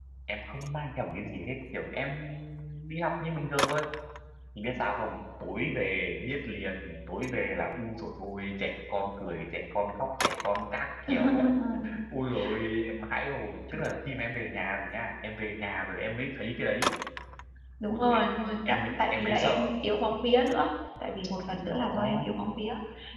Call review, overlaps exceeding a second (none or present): present